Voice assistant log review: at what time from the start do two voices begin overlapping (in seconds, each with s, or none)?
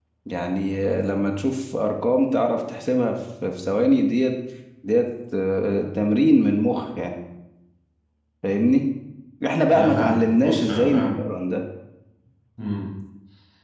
9.7 s